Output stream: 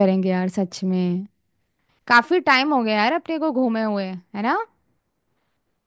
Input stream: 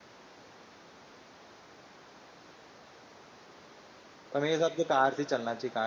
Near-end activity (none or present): present